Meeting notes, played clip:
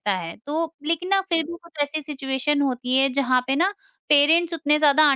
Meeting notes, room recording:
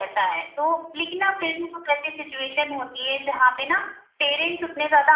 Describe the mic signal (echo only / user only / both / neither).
echo only